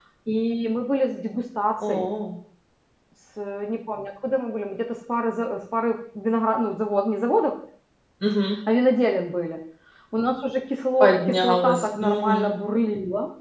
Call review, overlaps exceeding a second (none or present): present